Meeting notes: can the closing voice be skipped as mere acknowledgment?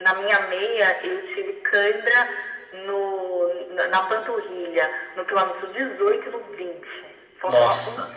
Yes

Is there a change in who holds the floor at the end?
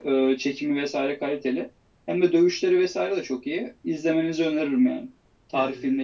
Yes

